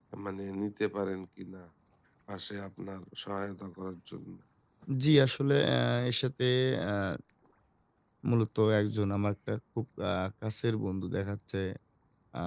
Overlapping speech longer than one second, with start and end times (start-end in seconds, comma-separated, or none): none